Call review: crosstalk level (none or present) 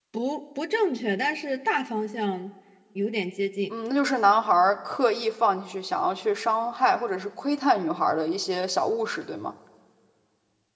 none